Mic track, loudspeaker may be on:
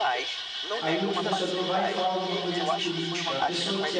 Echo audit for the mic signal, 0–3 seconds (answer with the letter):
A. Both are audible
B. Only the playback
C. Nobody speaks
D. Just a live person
A